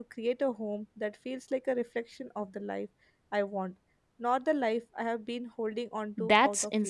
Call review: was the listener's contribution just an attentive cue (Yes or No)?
No